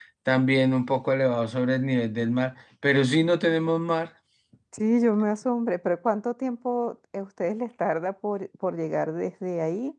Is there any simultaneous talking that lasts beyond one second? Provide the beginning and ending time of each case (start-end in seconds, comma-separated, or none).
none